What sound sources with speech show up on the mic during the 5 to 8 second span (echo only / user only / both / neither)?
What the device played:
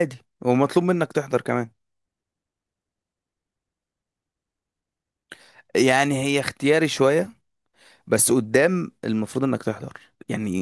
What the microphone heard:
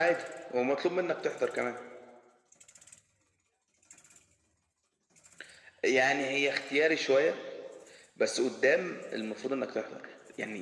echo only